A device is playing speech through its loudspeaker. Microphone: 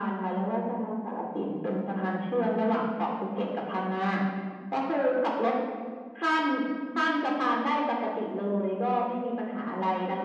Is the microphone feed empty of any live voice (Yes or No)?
Yes